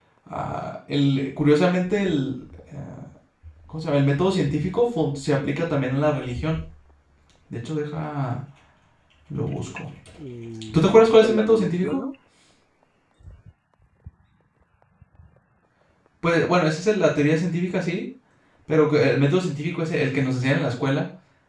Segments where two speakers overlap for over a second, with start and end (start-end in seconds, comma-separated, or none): 10.7-12.0